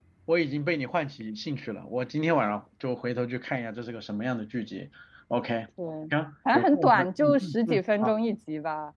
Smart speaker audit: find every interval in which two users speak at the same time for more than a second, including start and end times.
6.5-8.1

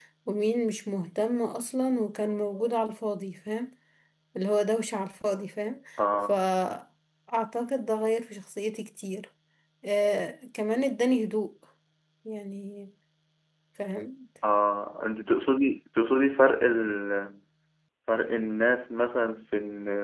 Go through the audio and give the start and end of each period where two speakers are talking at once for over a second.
none

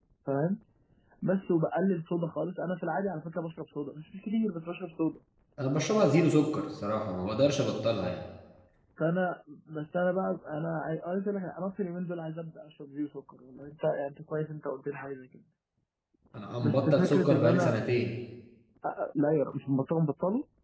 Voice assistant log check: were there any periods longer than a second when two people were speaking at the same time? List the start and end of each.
16.6-17.8

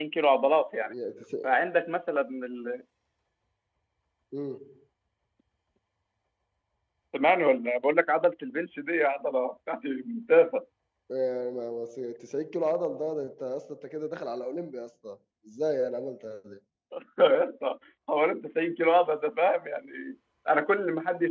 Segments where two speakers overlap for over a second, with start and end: none

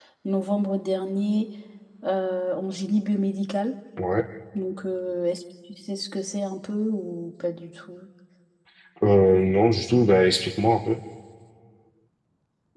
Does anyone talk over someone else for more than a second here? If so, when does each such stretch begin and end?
none

